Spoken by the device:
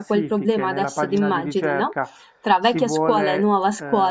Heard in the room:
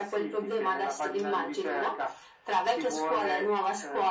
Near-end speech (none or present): none